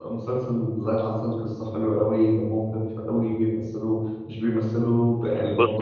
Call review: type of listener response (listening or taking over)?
listening